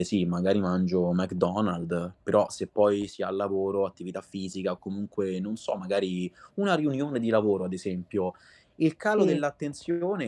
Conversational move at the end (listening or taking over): listening